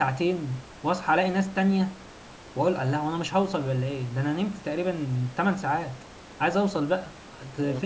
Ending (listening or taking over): listening